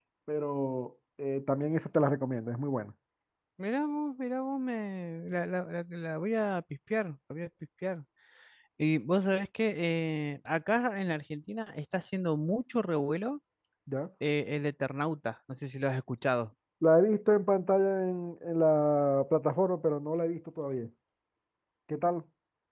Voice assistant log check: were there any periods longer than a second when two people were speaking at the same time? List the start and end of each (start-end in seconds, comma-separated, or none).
none